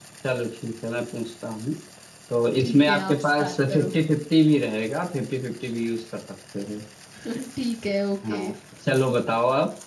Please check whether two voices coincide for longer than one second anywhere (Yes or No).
Yes